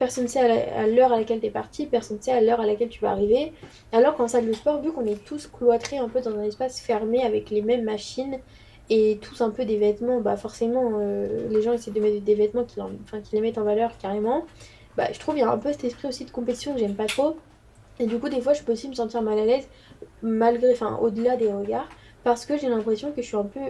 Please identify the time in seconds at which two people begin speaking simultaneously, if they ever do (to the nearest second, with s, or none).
none